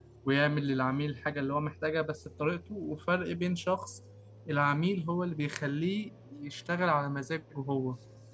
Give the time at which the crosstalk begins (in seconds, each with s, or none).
none